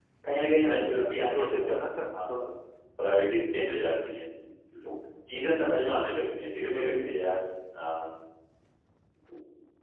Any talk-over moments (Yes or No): Yes